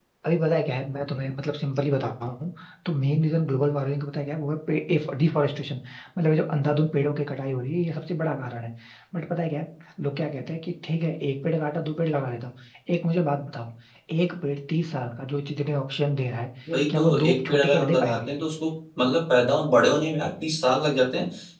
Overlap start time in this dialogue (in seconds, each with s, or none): 16.9 s